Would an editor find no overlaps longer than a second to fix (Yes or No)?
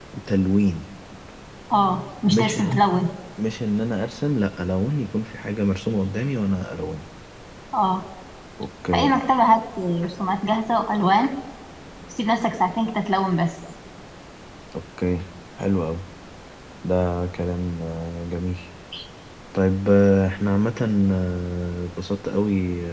Yes